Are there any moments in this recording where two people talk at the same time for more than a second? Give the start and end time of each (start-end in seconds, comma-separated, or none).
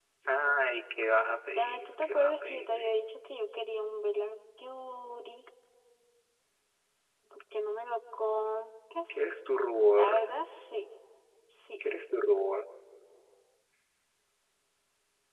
1.6-2.9